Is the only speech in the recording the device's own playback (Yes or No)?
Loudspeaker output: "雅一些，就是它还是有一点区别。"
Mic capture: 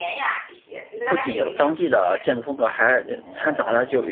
No